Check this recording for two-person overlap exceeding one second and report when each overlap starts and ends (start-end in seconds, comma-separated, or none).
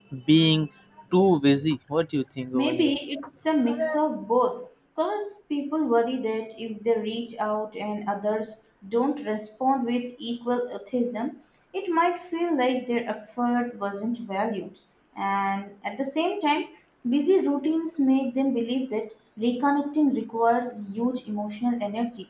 none